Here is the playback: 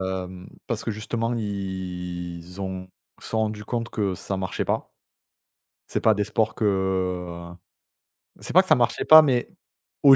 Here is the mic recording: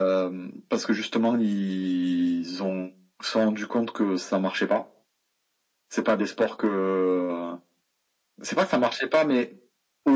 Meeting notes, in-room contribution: none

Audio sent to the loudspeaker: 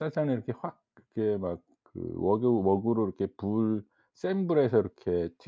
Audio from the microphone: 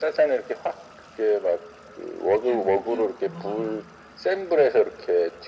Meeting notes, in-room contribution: present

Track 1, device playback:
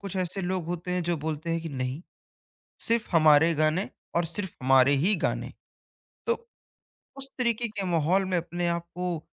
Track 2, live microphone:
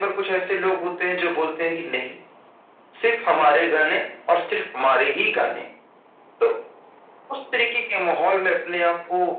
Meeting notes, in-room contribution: none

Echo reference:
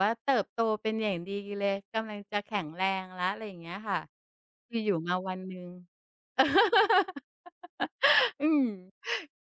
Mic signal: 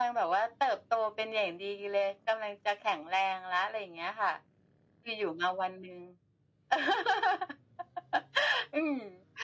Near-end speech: none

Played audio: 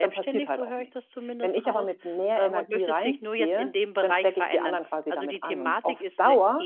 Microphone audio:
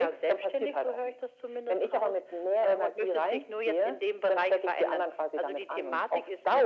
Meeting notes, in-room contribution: none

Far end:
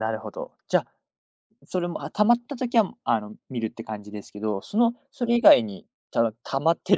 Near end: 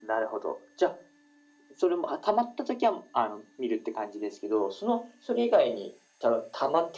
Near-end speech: none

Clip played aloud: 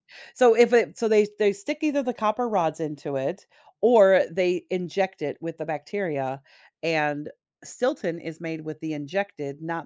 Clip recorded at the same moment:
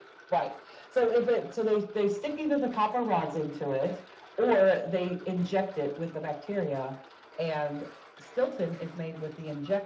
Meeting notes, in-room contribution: none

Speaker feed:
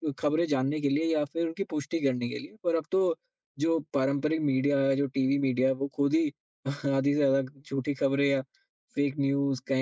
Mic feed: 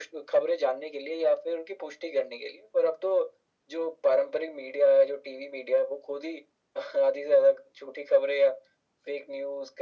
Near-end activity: none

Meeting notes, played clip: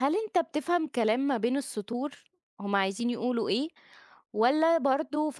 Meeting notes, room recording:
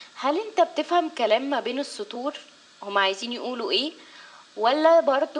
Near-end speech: none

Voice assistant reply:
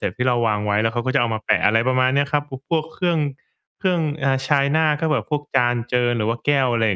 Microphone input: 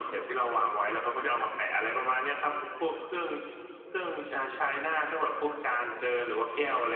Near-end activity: none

